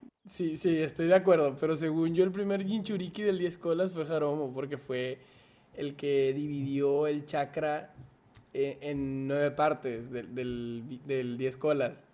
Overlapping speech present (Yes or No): No